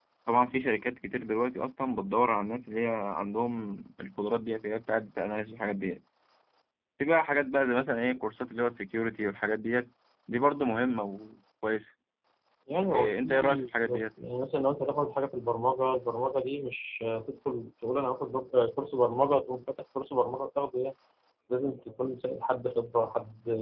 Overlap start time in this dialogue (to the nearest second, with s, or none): 13 s